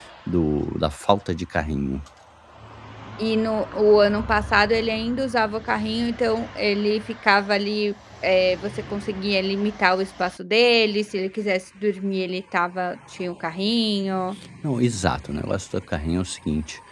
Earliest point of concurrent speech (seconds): none

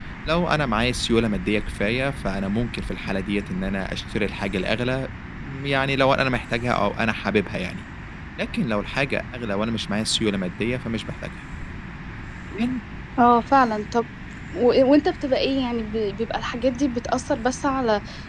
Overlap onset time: none

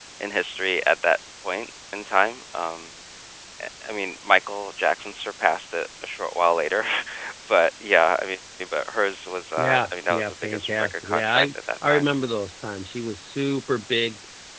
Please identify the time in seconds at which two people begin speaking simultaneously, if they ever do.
9.6 s

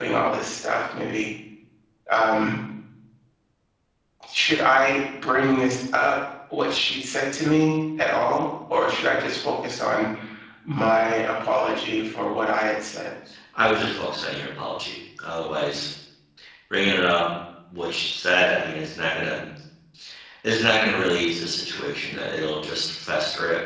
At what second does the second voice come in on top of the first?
none

